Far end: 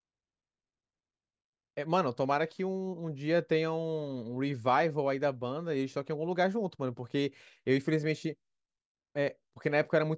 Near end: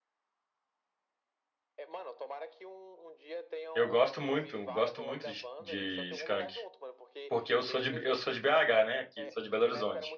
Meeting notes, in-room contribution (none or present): present